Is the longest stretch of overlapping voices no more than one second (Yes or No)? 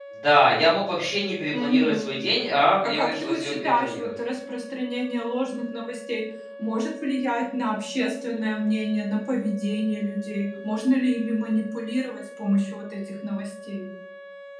No